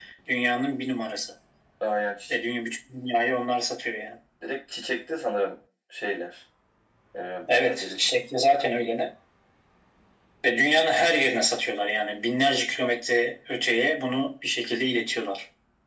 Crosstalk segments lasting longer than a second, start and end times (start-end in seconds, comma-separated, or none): none